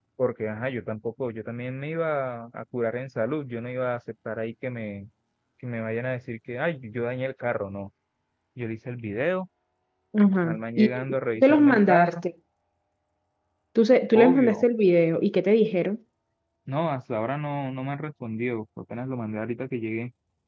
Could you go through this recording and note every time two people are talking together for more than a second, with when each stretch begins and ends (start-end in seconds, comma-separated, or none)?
10.4-12.1